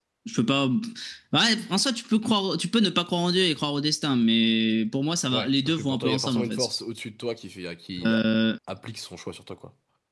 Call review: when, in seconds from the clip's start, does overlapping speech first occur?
5.3 s

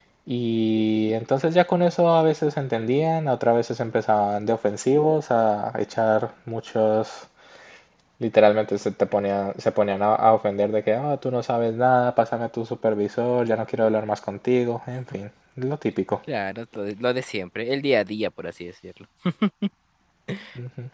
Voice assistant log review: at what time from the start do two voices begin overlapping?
none

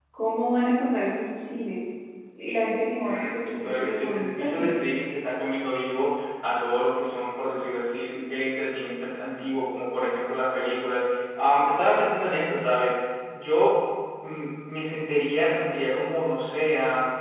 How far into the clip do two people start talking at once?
3.0 s

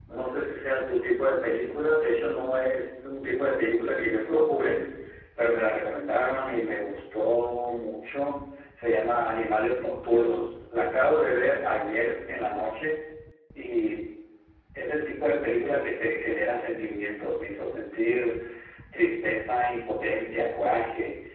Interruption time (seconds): none

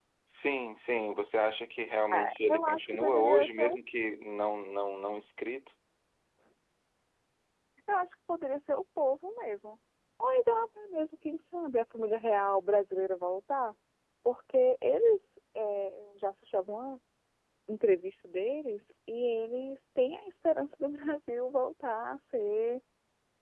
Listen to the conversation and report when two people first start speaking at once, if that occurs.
2.1 s

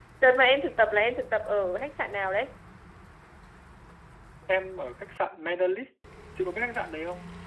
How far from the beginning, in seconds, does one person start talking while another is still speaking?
none

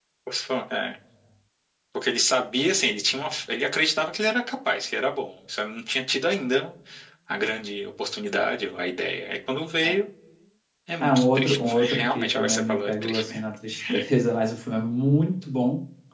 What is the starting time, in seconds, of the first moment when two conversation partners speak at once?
11.0 s

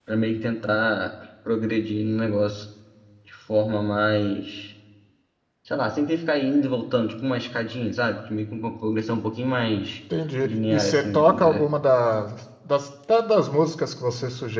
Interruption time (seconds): 10.4 s

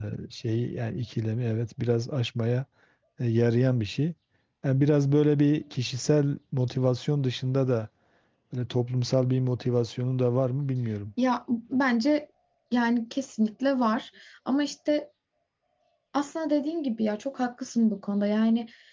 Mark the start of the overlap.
none

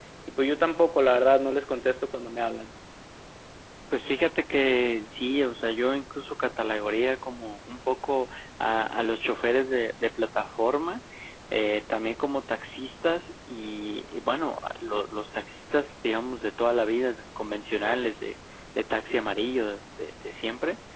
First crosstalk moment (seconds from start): none

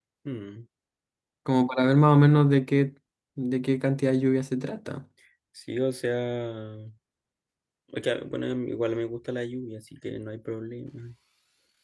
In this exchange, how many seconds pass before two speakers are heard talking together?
none

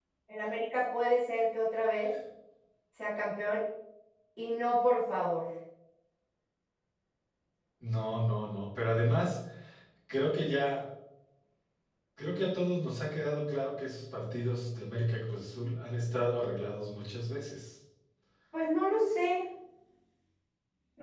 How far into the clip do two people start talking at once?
none

